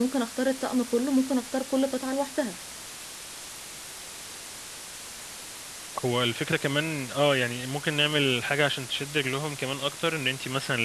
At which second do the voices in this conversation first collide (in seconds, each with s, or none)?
none